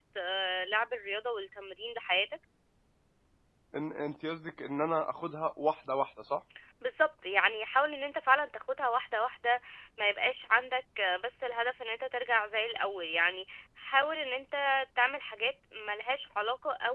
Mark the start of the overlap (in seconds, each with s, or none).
none